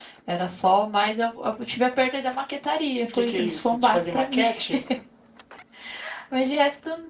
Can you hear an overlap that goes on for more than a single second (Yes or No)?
Yes